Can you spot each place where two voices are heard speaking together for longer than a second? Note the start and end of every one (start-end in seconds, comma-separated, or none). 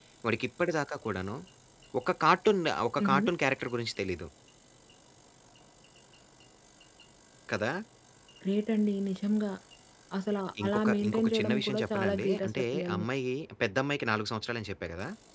10.6-13.1